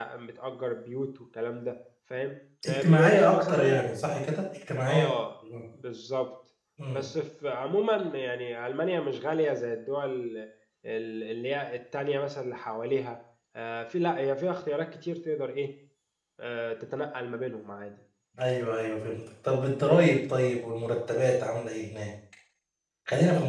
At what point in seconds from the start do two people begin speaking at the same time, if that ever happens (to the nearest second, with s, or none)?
3 s